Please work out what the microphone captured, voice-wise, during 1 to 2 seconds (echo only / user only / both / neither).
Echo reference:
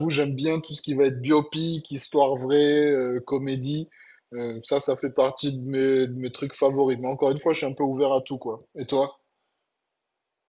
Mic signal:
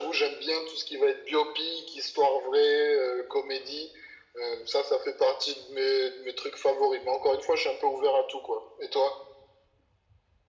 echo only